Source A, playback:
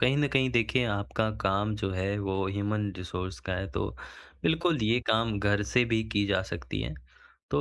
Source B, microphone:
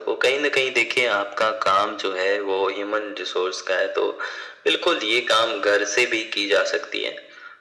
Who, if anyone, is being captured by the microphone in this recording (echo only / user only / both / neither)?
echo only